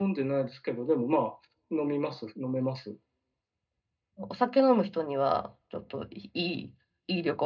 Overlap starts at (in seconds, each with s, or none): none